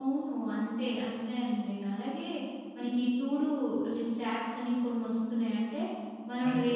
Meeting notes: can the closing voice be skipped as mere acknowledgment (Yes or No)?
Yes